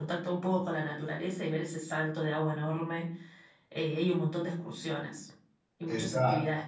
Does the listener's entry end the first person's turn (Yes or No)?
Yes